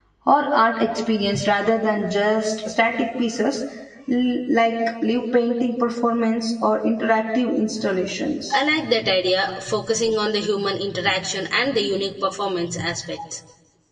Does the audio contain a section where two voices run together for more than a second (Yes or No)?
No